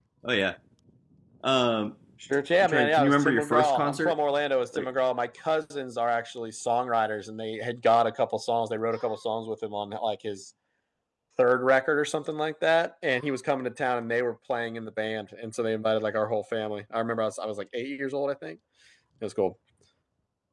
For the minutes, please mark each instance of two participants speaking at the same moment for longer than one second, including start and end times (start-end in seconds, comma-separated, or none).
2.6-4.1